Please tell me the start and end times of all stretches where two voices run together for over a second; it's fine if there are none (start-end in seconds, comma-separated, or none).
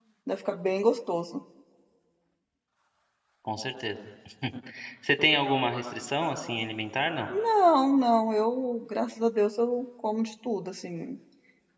none